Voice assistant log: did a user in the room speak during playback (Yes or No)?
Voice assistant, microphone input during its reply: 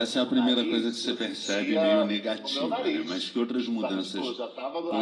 No